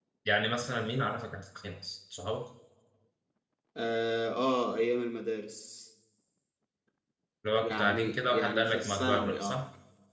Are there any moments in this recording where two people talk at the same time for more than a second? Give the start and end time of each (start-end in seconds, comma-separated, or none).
7.6-9.6